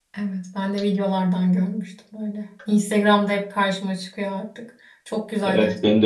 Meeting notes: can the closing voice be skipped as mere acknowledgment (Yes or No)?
No